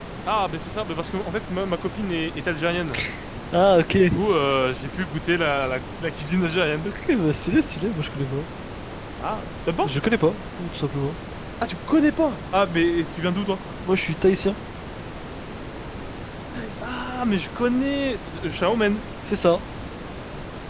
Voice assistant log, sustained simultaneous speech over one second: none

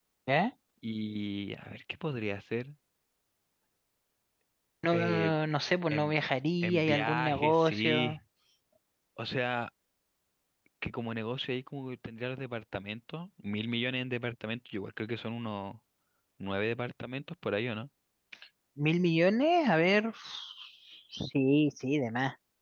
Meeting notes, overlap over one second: present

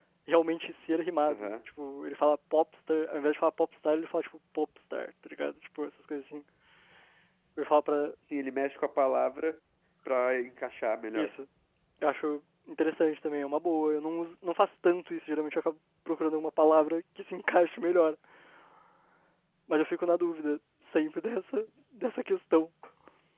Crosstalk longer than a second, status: none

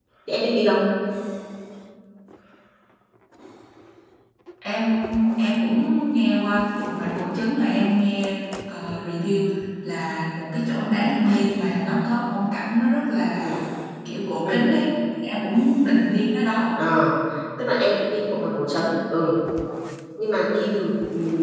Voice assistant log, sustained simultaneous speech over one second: none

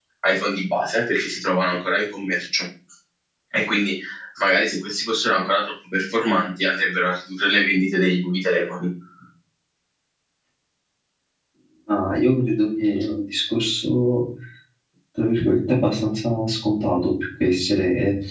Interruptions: none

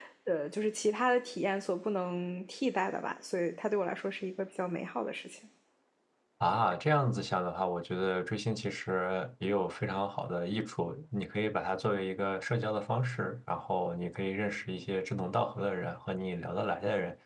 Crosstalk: none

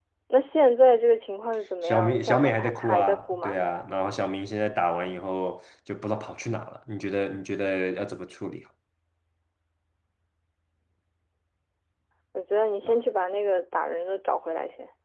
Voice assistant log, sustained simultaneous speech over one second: present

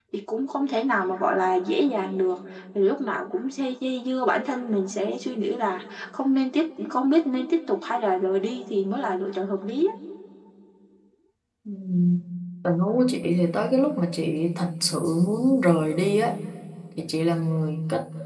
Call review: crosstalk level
none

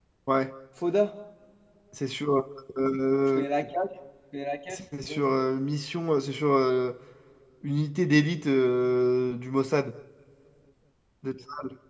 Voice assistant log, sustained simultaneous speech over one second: none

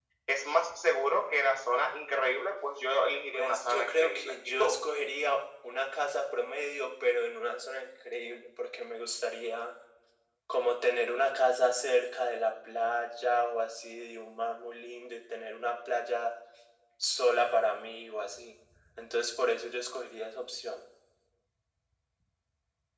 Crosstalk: present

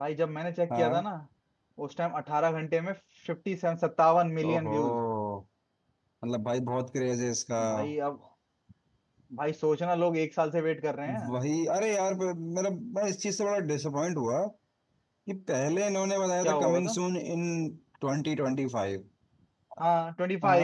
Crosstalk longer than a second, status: none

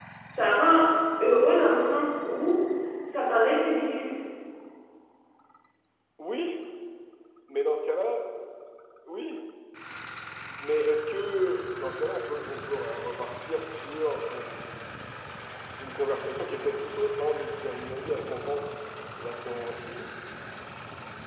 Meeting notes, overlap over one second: none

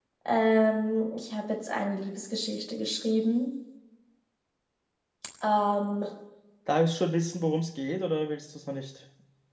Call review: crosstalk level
none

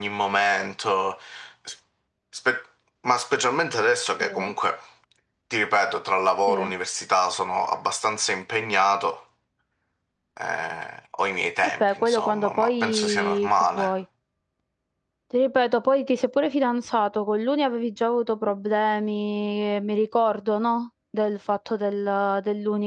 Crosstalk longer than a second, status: present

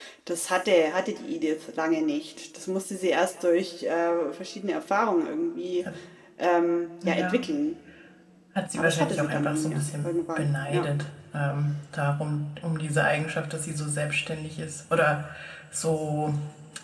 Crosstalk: present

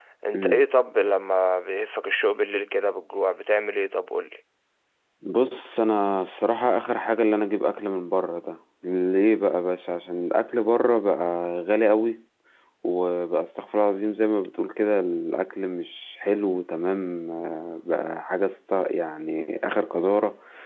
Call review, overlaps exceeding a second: none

